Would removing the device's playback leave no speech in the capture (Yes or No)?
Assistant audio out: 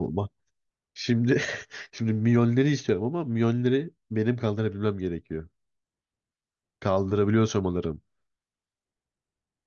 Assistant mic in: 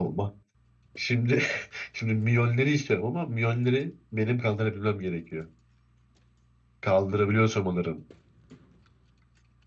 Yes